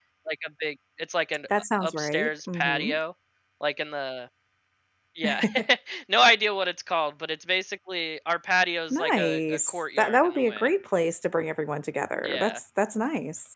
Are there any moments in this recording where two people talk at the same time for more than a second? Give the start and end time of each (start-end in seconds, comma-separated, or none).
1.7-3.0, 8.9-10.7